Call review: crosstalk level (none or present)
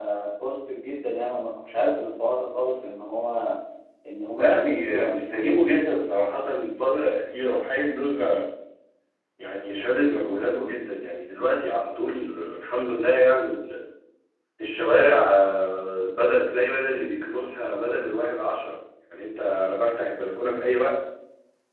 present